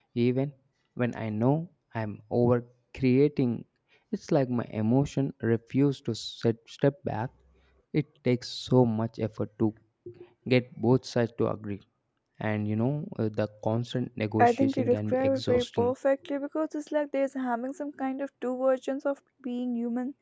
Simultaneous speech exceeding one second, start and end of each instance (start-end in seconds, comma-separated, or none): 14.4-15.9